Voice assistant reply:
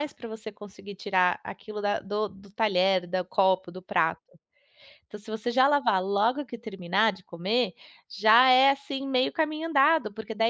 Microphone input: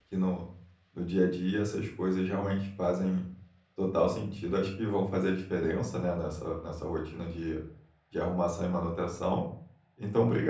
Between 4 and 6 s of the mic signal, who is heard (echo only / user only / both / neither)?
user only